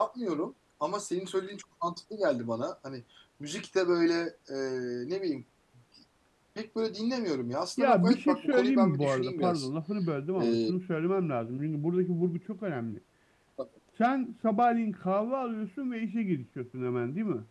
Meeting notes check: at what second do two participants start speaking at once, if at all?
7.8 s

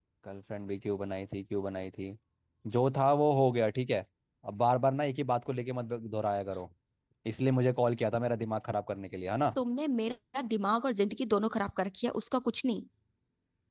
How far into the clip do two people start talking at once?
none

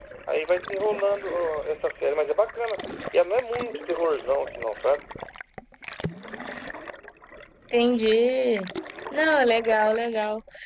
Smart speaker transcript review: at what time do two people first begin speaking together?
none

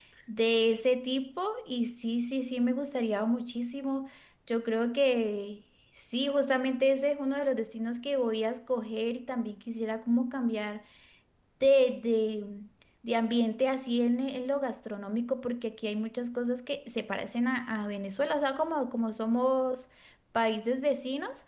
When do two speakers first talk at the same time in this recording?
none

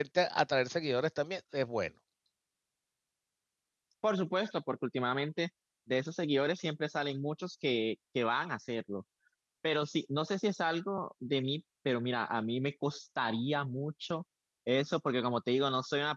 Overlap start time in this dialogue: none

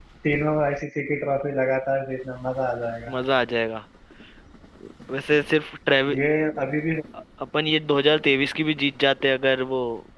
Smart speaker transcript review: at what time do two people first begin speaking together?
none

